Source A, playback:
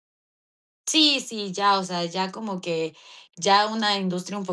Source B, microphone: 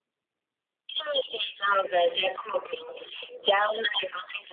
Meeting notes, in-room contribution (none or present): none